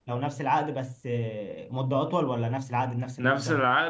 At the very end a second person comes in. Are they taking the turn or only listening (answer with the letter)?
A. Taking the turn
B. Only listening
A